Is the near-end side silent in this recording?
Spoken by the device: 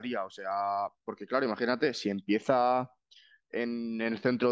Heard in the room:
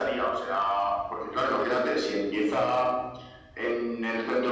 Yes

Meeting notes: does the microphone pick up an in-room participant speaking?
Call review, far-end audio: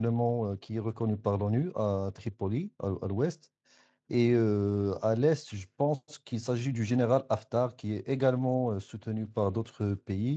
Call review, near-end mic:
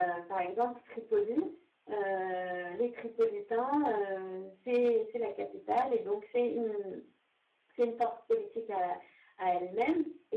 Yes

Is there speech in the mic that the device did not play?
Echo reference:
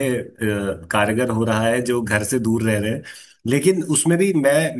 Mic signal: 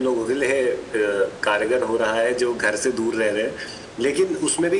No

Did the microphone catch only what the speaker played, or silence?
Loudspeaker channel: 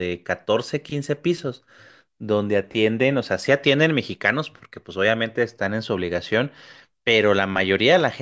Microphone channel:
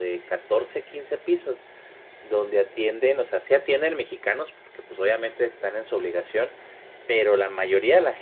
Yes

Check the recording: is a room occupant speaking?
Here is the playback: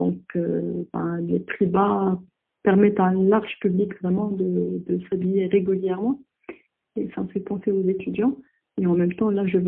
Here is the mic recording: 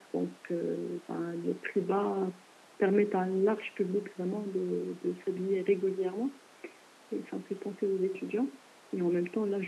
No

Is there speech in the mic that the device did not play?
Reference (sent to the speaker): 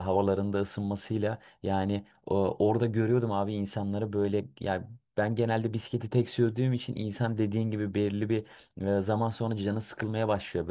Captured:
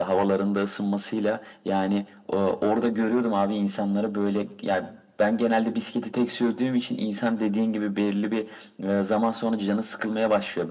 No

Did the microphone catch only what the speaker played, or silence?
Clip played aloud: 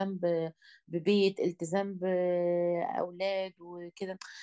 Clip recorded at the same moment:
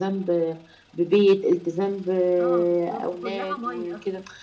No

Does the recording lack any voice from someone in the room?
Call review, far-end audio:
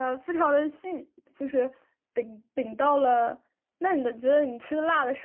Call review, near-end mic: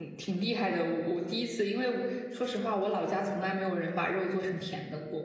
No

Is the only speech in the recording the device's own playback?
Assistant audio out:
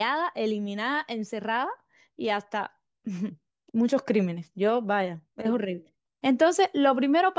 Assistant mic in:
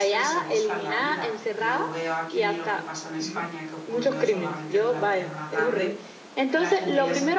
No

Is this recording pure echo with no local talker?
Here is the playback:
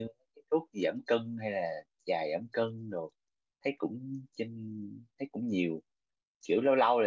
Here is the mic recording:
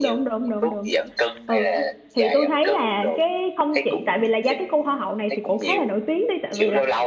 No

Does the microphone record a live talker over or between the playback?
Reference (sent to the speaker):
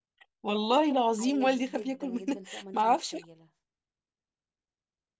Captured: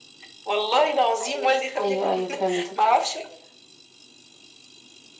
Yes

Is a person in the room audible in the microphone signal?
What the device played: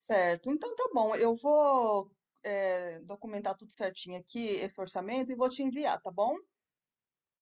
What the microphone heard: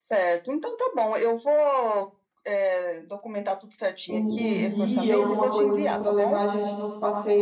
Yes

